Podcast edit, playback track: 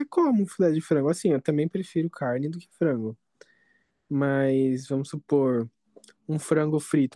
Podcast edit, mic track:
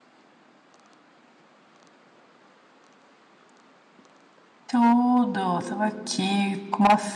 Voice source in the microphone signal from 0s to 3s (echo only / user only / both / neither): neither